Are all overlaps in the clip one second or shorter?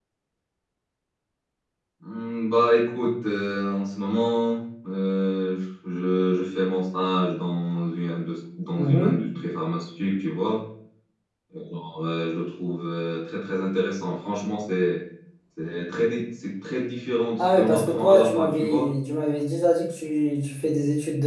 No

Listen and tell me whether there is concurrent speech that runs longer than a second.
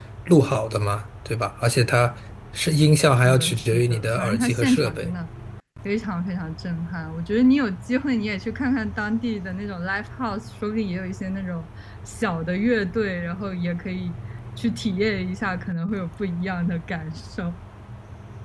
Yes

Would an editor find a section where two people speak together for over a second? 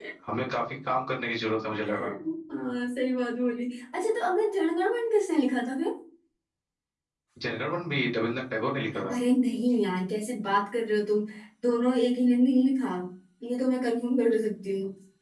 No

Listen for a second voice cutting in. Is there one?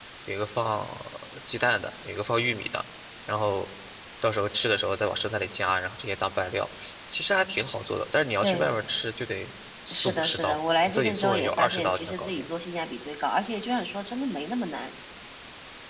Yes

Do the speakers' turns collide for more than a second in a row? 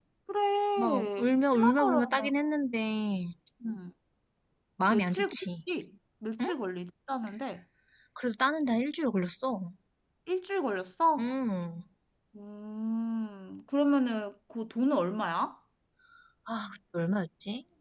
Yes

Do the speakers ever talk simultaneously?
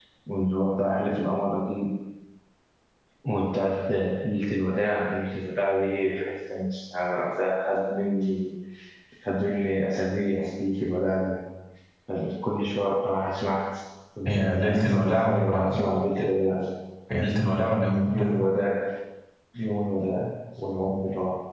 Yes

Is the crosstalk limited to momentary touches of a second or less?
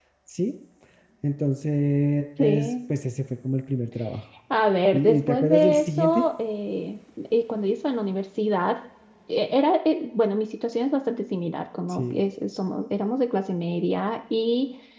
No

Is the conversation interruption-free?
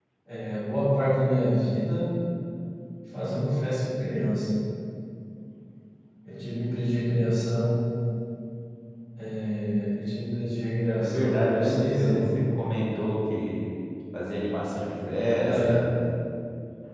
No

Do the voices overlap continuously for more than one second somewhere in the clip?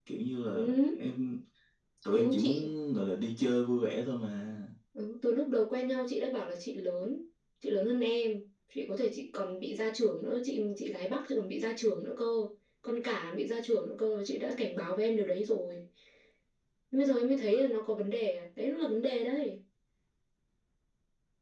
No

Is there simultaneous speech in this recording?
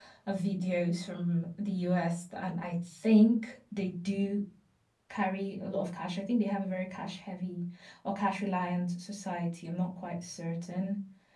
No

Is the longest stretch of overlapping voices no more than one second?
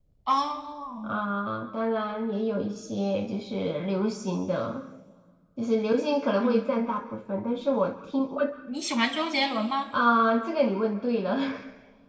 Yes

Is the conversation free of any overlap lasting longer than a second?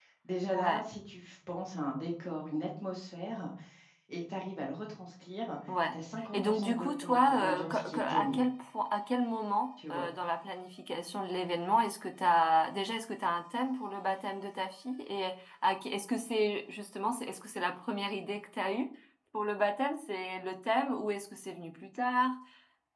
No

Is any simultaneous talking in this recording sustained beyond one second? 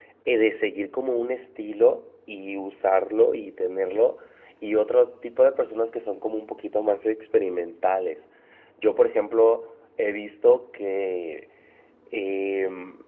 No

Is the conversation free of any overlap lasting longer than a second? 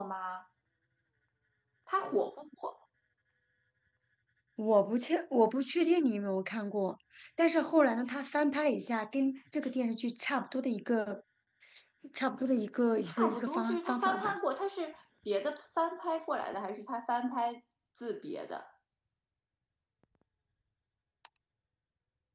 No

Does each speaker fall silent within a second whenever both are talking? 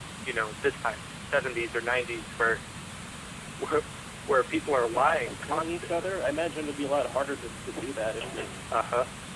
No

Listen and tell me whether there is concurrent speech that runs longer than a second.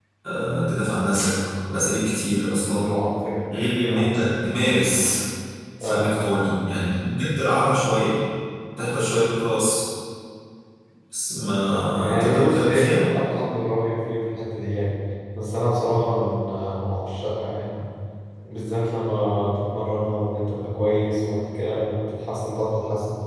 Yes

